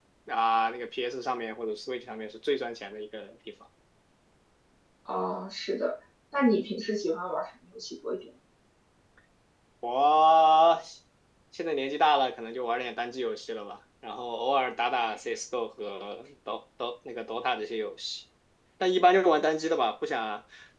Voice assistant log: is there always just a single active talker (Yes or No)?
Yes